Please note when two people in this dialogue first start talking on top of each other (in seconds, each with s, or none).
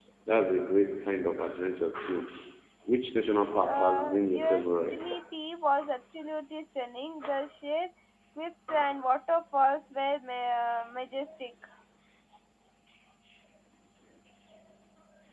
3.7 s